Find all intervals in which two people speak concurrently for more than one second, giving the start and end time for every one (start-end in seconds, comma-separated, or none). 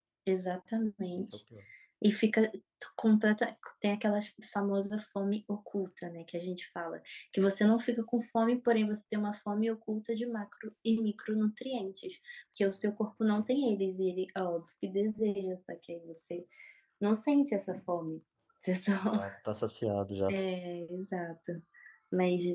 none